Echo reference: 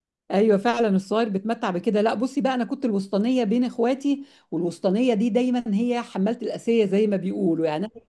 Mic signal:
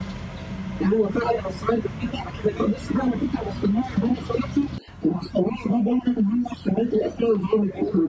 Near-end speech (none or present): none